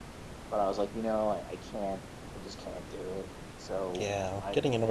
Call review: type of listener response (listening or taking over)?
taking over